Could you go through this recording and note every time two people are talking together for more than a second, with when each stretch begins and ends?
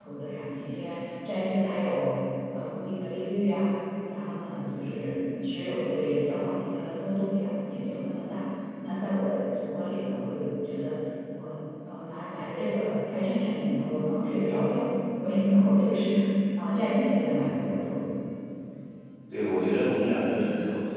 none

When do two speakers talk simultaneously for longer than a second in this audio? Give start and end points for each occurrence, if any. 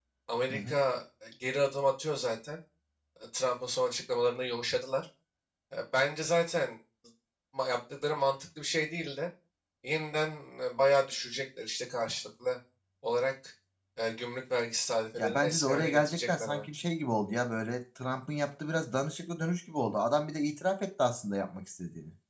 15.2-16.6

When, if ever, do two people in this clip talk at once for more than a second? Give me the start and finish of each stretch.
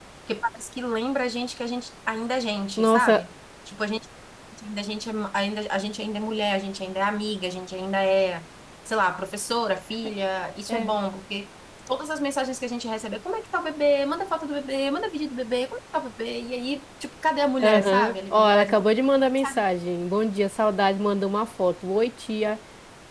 17.6-18.8

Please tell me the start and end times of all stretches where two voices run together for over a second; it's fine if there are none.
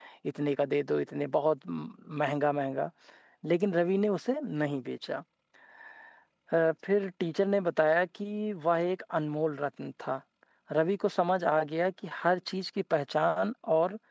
none

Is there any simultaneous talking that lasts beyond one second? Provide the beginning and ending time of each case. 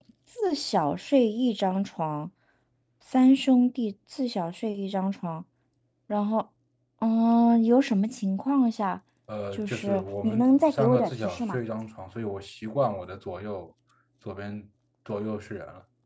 9.6-11.6

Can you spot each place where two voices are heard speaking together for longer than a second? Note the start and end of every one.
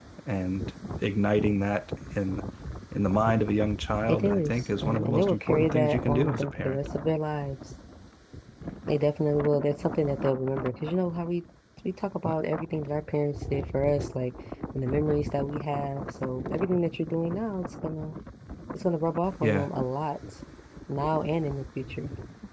4.1-6.8

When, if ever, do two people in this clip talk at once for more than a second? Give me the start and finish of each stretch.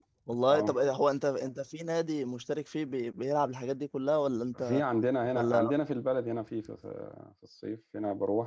none

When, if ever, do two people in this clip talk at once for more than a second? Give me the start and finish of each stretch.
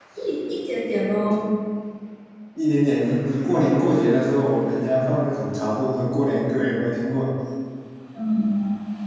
none

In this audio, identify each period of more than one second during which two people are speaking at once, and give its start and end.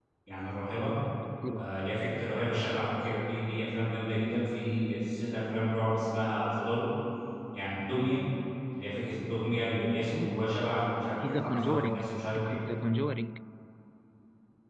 11.2-12.6

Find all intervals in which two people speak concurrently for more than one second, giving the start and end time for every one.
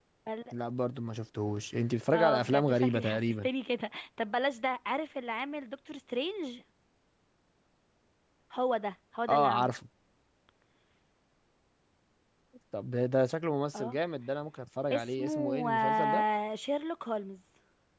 2.1-3.5, 14.9-16.2

